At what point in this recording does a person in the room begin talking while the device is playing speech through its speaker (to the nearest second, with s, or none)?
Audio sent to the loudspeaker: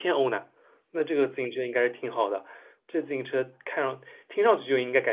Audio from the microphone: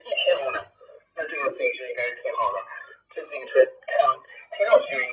none